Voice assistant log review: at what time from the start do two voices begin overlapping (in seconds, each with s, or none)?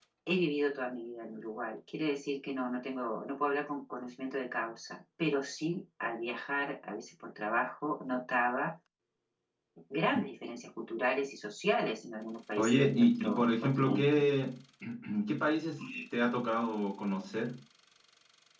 12.6 s